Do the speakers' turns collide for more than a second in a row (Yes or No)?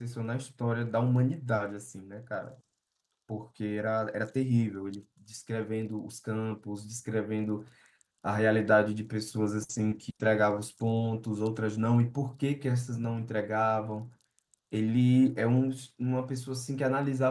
No